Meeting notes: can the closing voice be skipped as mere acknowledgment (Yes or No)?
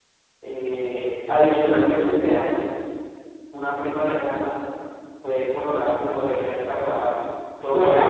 Yes